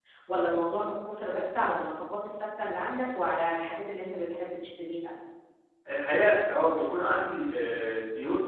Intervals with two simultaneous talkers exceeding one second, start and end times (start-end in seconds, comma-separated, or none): none